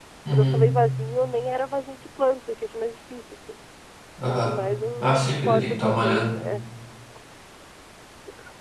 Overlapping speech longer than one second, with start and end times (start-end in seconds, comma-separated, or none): 5.0-6.4